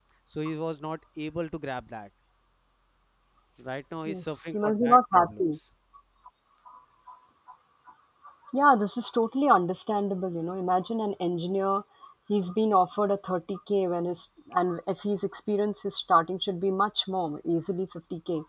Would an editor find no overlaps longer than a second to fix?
No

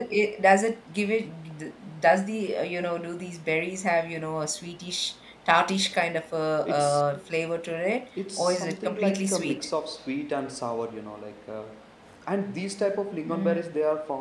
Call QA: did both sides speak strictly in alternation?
No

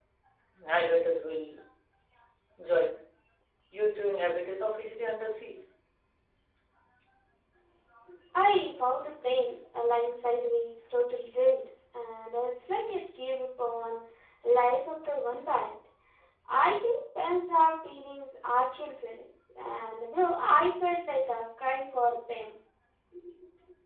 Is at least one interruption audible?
No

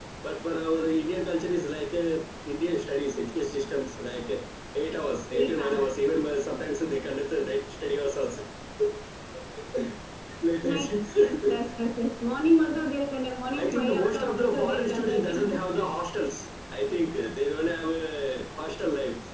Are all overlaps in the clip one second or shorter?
No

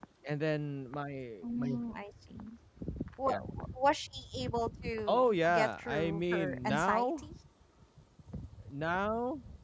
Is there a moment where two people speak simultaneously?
Yes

